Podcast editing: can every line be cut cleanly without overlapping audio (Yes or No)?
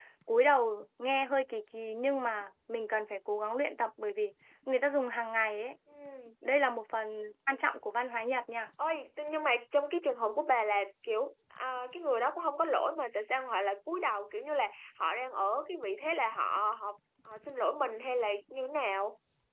Yes